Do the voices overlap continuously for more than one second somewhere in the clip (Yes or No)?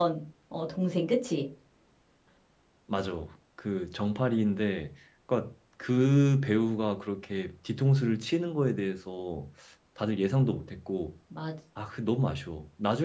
No